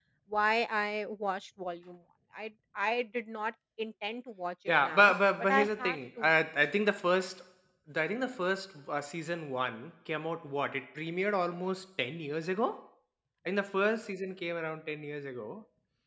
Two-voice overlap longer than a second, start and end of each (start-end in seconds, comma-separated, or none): 4.8-6.3